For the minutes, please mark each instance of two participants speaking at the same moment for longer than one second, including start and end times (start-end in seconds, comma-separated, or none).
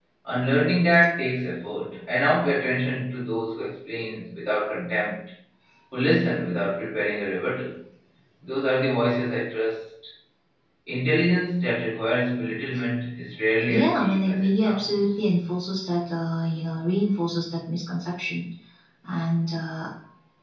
13.7-15.0